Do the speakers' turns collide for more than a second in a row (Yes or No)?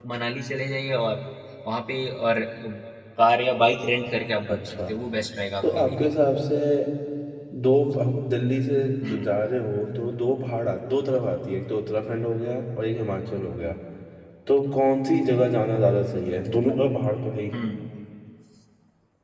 No